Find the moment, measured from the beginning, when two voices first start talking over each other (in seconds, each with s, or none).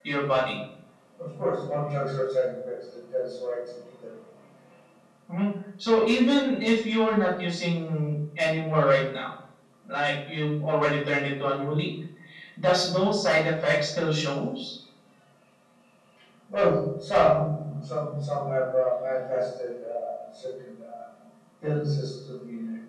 none